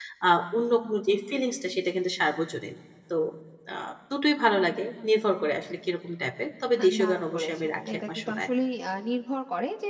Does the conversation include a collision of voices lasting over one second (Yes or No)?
Yes